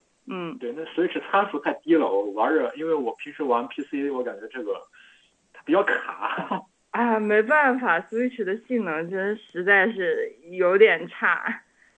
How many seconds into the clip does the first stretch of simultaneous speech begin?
none

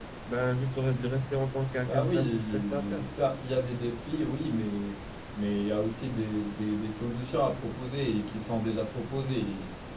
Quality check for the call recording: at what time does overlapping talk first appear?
1.9 s

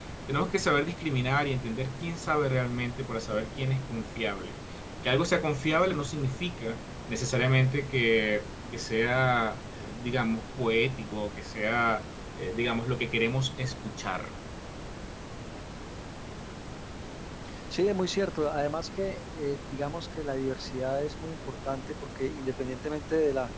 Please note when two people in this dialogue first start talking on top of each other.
none

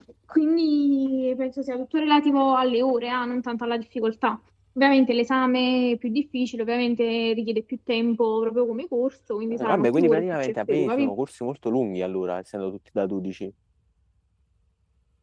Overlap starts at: 9.5 s

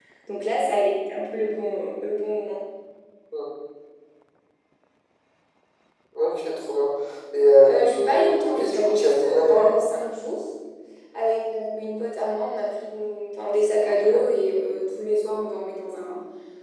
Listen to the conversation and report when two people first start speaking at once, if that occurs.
7.7 s

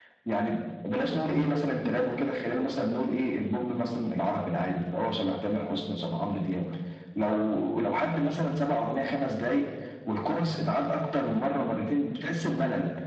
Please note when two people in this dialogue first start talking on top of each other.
none

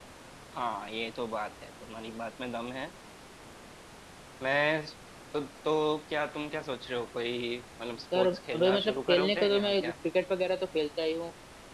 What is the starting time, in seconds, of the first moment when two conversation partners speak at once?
8.1 s

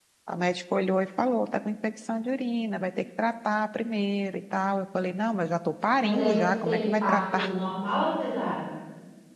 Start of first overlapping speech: 6.0 s

